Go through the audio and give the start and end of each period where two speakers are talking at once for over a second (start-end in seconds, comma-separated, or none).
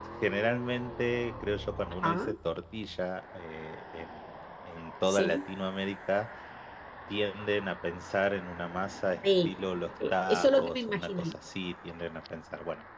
10.1-11.3